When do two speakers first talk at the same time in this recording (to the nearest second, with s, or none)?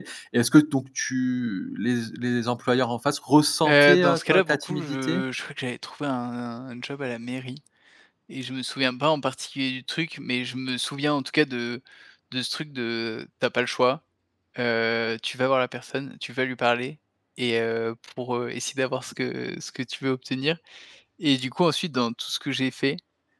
4 s